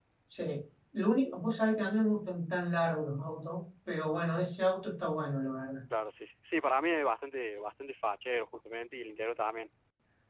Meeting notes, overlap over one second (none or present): none